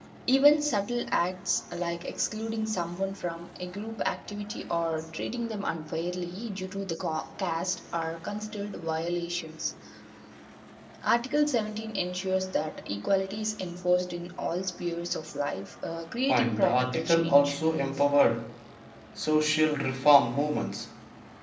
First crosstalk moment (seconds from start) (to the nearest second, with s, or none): 16 s